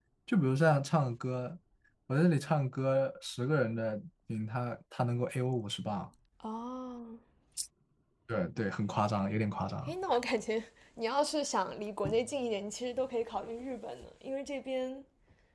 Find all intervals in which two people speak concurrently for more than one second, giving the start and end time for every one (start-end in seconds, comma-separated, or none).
none